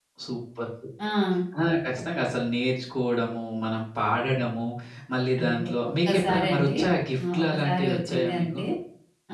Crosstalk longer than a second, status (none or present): present